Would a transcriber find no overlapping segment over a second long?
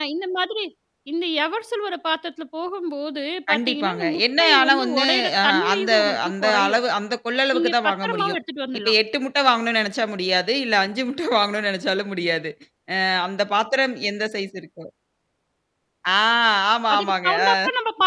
No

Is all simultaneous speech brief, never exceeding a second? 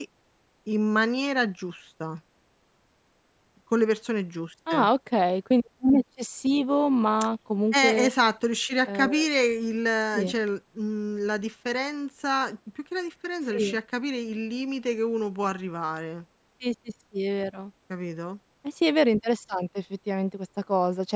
Yes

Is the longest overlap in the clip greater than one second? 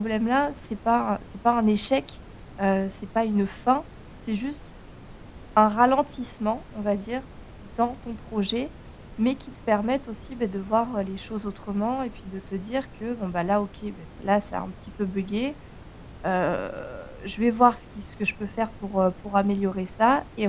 No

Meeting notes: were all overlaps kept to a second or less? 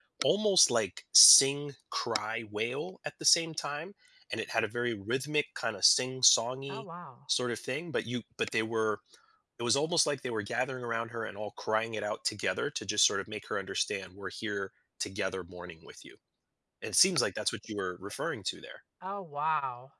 Yes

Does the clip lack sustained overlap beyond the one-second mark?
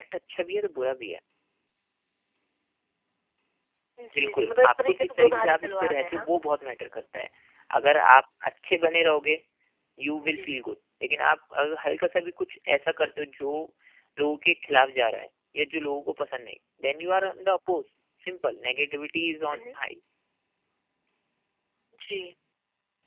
No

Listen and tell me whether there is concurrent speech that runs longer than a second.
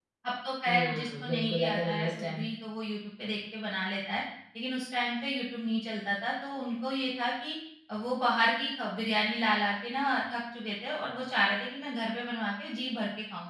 Yes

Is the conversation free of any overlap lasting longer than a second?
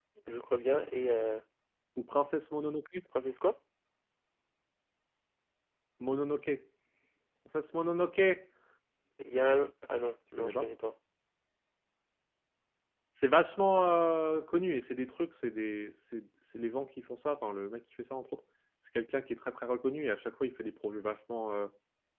Yes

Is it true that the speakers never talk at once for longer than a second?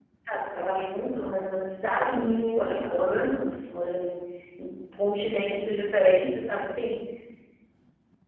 No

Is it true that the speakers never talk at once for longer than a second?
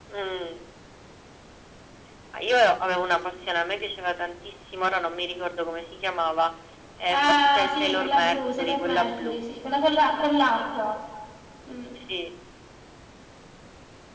No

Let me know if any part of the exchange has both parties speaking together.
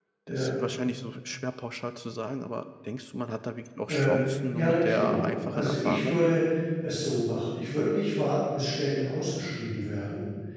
Yes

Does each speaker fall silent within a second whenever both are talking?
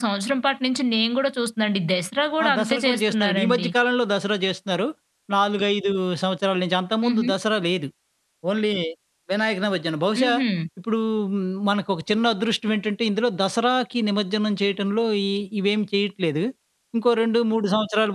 No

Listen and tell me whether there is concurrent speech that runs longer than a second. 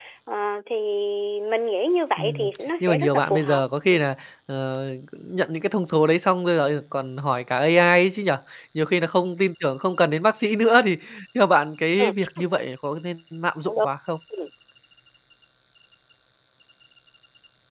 Yes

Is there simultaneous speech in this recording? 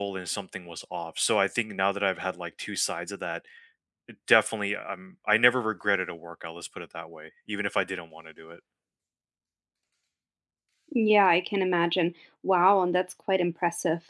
No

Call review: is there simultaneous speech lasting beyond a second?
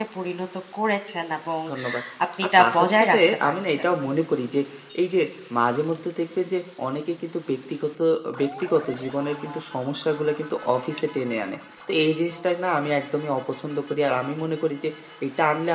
Yes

